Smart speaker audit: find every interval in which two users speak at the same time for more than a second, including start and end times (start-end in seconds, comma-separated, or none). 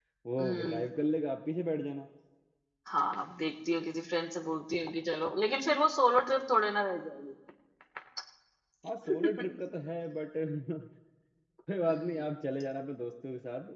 none